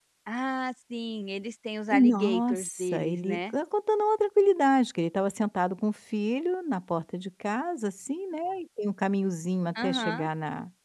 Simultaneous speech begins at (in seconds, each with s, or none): 1.9 s